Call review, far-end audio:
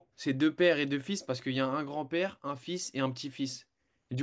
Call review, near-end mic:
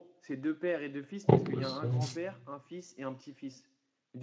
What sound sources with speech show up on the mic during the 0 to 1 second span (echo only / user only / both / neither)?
echo only